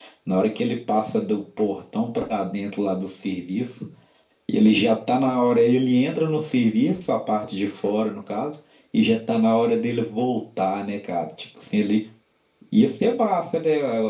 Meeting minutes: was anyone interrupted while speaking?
No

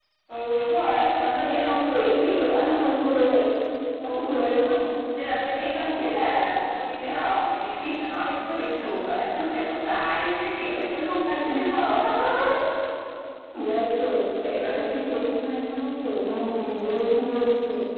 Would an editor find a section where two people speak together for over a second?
Yes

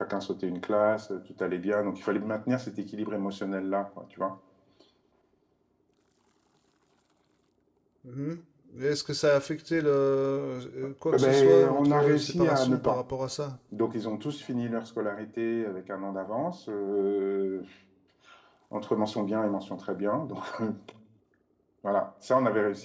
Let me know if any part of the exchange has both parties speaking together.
Yes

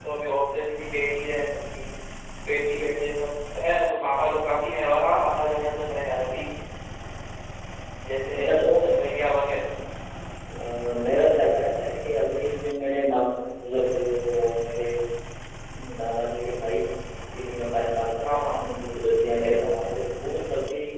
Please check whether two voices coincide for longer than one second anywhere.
No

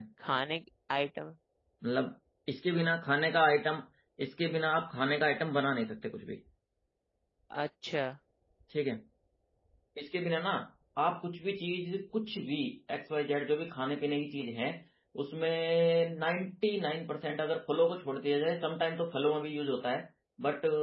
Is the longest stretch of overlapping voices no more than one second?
Yes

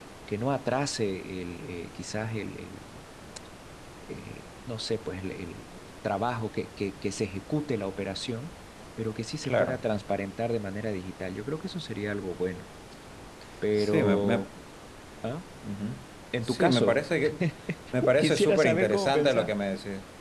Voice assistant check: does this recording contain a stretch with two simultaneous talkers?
Yes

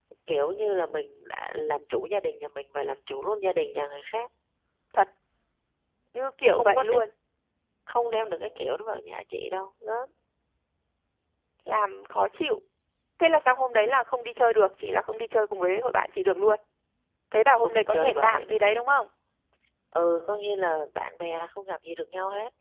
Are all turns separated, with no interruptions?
No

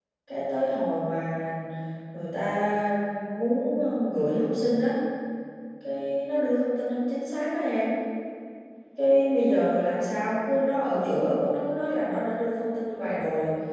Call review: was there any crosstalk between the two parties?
No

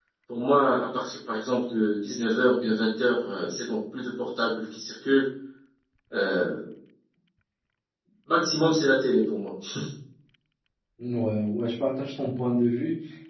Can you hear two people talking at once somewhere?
No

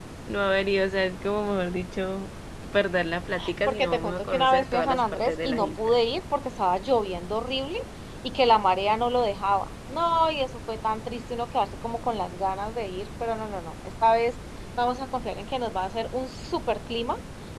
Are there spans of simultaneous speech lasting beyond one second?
Yes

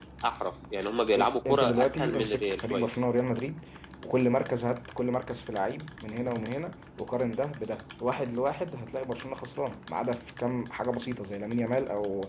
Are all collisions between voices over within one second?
No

